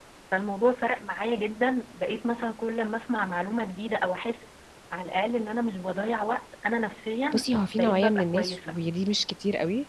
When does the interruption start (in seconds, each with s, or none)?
7.3 s